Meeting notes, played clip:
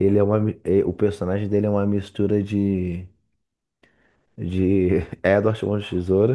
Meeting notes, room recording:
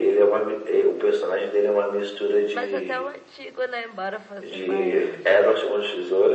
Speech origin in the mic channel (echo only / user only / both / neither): both